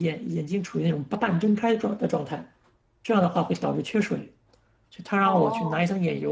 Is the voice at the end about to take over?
No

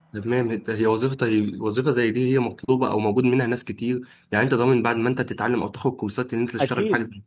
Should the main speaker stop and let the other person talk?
Yes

